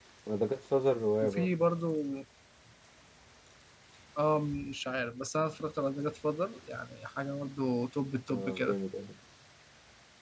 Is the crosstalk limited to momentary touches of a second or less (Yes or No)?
Yes